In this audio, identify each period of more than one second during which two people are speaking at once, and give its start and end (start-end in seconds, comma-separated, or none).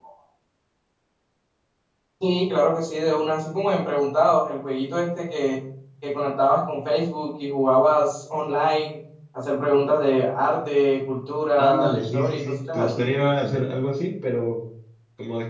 11.6-13.1